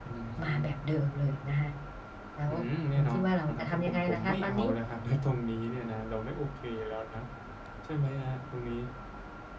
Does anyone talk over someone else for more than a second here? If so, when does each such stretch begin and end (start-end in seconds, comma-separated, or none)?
3.5-4.7